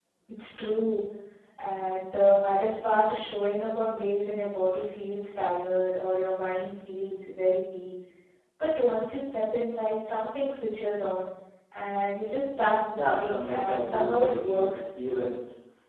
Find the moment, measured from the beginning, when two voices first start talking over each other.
13.0 s

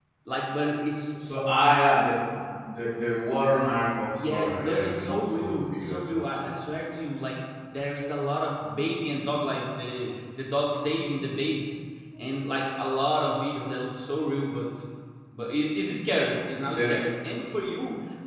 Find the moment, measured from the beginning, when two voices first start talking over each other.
4.2 s

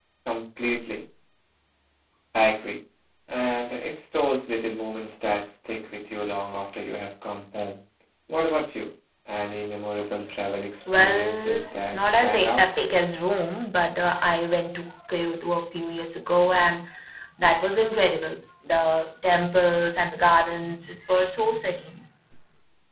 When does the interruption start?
10.9 s

